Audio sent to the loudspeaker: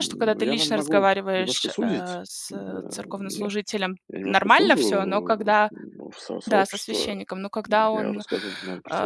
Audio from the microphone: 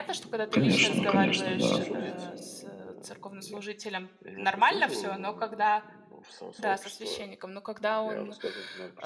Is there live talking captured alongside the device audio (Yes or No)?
Yes